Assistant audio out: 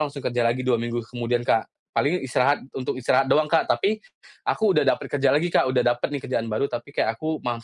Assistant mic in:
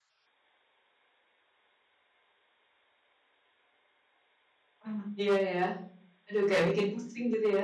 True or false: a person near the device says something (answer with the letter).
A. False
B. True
B